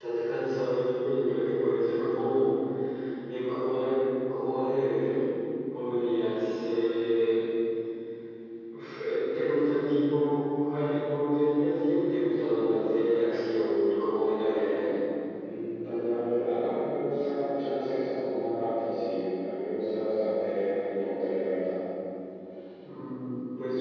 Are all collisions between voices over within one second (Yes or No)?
Yes